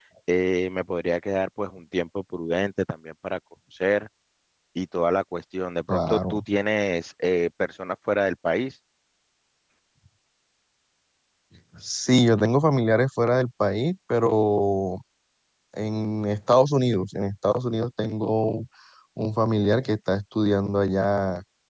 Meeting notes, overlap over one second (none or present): none